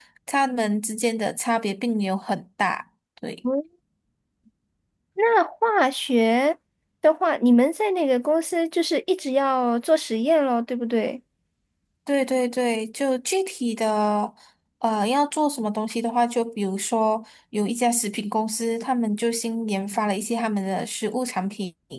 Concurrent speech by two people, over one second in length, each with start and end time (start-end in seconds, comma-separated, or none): none